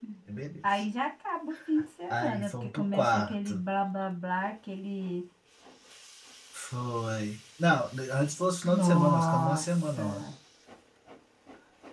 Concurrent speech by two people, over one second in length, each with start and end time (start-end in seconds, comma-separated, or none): 2.1-3.6, 8.7-10.1